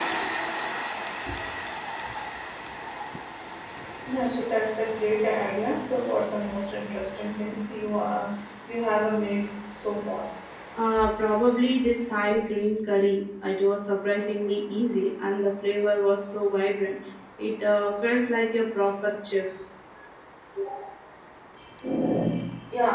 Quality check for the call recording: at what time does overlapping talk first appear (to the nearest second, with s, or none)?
none